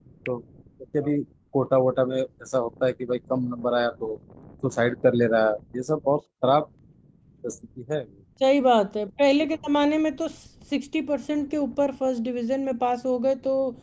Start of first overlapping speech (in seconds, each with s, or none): none